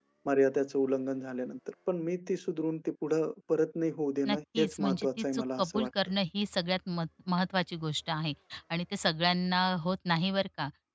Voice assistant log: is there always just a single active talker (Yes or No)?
No